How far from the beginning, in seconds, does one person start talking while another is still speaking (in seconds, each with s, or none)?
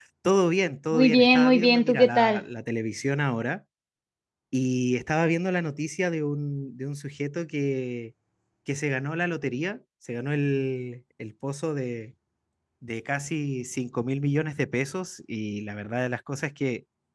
0.9 s